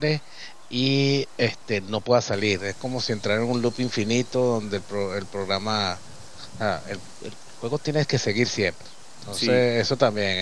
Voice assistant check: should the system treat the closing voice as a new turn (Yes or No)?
No